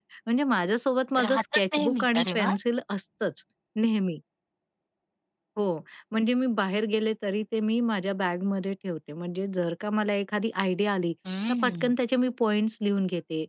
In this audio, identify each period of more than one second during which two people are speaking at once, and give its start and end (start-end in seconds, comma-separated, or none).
1.2-2.5